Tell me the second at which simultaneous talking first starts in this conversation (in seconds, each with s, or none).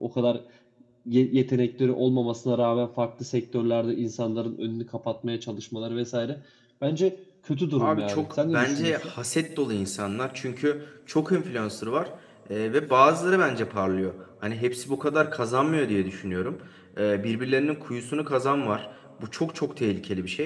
7.8 s